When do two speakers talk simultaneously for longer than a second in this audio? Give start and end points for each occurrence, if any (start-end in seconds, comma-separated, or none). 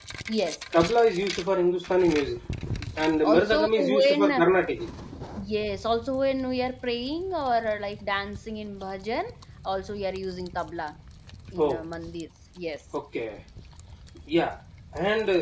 3.2-4.5